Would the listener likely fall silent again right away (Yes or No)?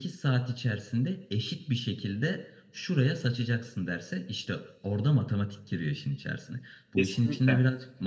Yes